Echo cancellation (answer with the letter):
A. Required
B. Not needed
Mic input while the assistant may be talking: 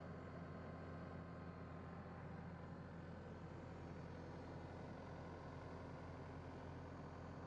B